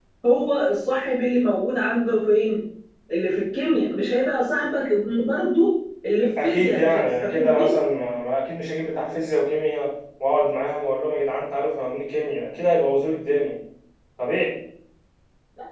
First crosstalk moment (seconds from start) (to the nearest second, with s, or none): 6 s